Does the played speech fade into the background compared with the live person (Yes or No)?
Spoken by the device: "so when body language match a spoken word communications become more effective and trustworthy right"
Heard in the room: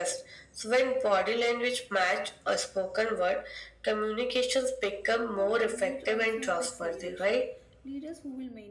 No